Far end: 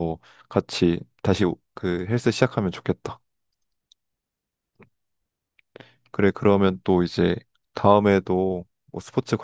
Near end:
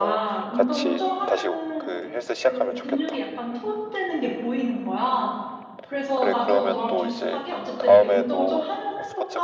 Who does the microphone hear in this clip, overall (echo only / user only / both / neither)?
both